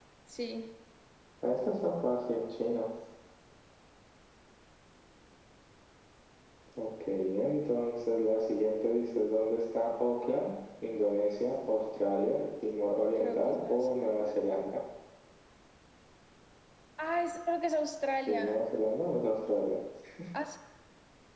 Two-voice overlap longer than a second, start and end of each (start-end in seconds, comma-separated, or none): 13.1-14.5